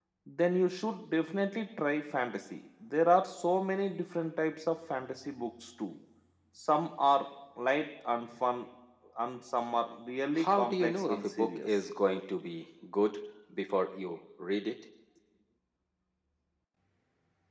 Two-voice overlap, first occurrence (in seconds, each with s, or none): 10.3 s